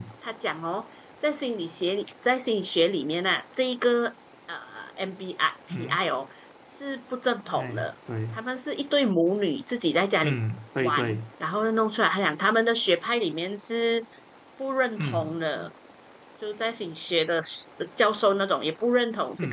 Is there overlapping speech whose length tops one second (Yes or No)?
No